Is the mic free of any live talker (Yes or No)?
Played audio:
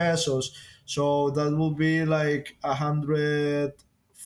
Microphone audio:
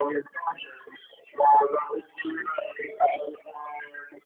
Yes